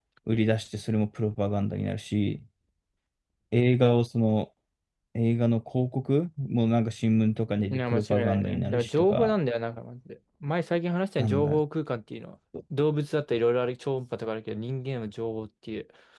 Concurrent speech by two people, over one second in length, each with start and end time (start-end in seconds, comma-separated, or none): 7.7-9.3